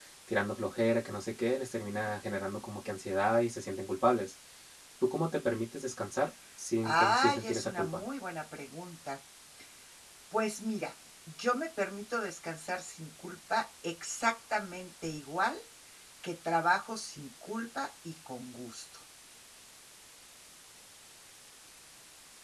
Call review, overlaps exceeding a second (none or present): present